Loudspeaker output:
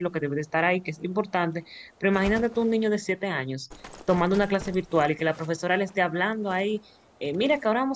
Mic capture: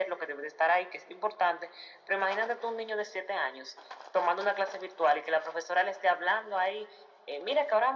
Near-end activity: none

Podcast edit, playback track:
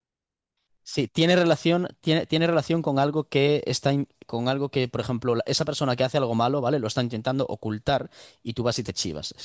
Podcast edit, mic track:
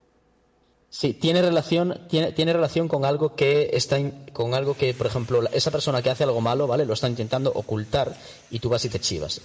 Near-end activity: none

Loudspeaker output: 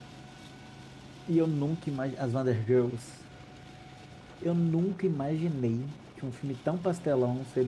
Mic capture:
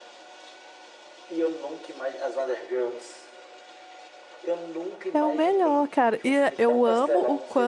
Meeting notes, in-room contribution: present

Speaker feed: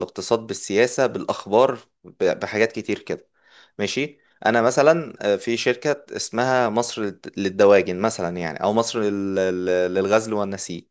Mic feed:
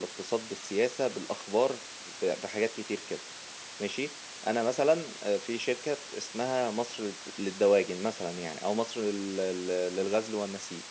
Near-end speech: none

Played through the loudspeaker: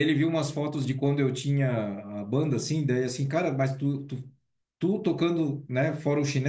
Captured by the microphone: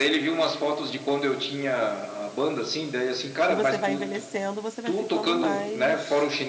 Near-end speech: present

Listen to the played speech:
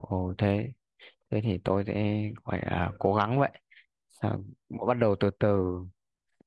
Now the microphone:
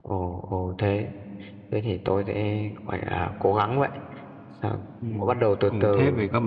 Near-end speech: present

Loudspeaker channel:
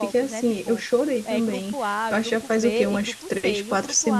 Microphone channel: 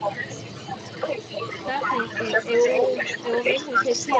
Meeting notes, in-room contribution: present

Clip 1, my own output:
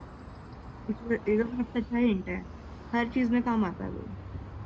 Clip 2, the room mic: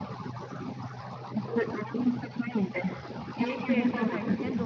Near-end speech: present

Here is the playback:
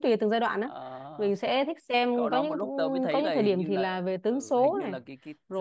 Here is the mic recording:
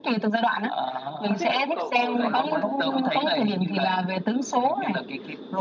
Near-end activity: present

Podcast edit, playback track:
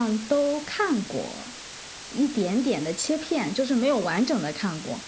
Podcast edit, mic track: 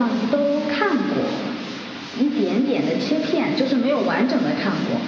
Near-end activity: none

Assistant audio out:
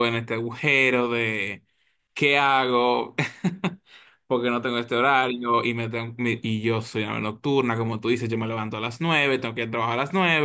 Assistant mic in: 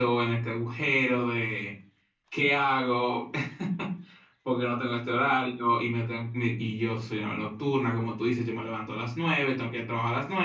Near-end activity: none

